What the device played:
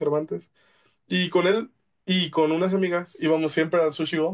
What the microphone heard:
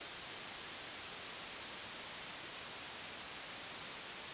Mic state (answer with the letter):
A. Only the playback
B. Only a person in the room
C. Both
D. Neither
D